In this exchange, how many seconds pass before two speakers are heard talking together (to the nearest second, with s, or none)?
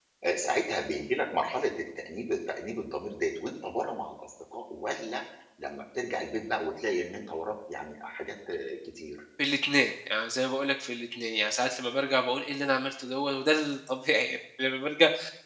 none